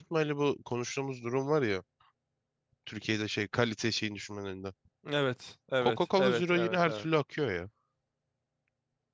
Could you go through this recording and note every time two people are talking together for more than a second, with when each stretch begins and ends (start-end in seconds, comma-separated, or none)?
5.8-7.0